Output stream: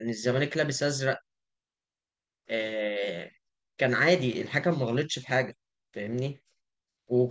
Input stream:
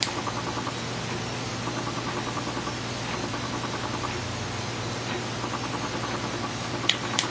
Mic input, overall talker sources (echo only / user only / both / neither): neither